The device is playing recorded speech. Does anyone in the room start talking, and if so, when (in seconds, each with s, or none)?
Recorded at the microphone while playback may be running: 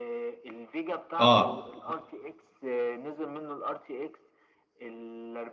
1.2 s